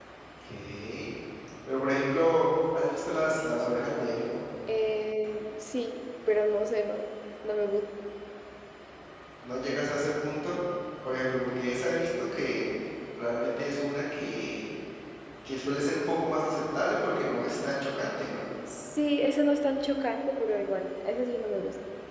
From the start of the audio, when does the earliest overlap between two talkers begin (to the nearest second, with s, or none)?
none